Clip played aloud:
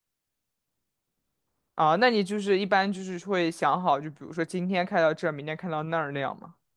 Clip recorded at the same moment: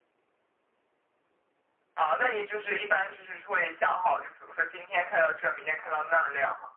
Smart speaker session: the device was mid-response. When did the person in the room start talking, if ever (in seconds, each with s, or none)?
none